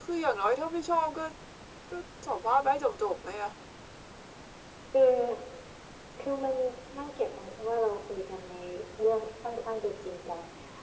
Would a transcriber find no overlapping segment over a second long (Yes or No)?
Yes